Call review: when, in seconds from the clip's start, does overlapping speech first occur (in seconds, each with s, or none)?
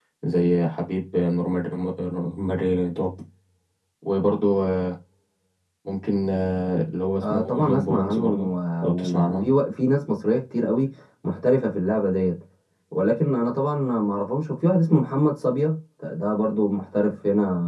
7.2 s